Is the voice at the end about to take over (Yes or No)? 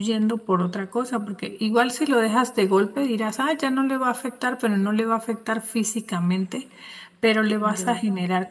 No